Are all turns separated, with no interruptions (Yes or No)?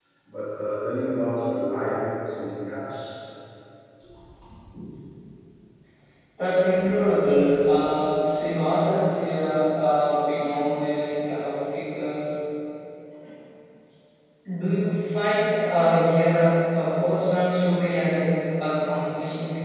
Yes